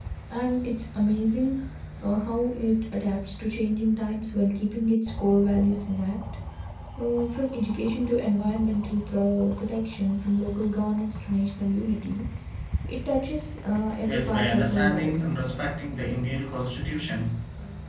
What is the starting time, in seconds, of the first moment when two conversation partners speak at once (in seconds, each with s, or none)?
14.0 s